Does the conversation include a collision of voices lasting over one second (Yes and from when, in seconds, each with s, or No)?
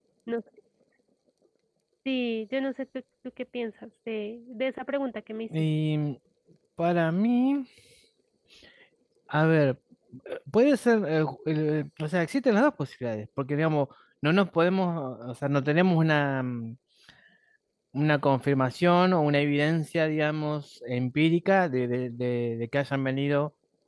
No